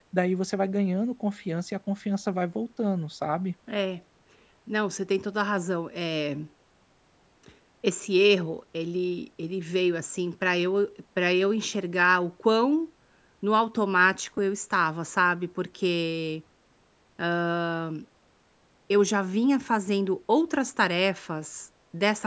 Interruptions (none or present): none